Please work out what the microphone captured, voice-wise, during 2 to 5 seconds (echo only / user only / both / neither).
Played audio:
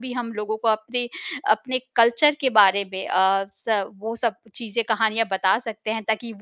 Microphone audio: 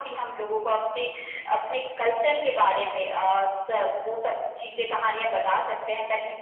echo only